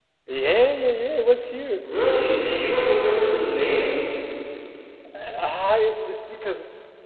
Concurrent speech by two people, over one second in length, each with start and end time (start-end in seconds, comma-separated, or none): none